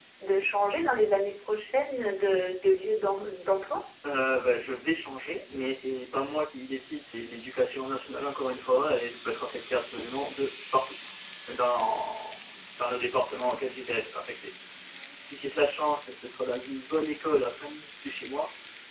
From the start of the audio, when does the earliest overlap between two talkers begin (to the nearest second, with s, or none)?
none